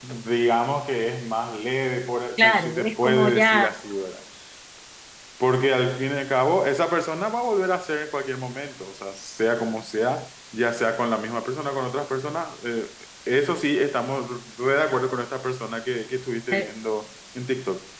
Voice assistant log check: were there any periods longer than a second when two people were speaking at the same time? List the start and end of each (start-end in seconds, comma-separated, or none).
2.4-3.7